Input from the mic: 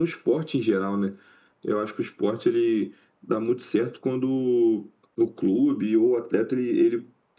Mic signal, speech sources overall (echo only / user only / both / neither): echo only